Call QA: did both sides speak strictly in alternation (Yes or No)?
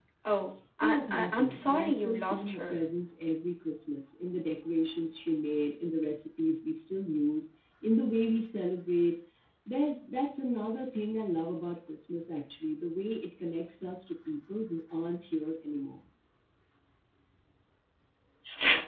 No